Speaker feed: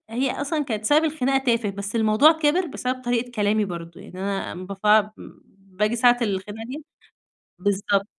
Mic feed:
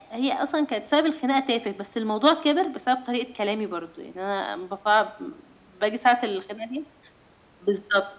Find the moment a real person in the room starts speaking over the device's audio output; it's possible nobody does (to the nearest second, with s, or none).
none